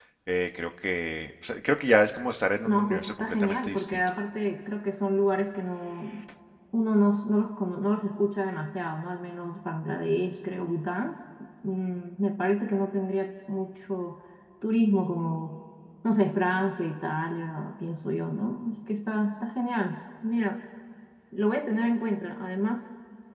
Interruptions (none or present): present